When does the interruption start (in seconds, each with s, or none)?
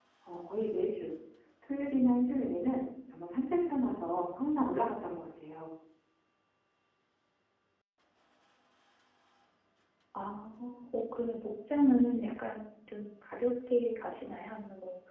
none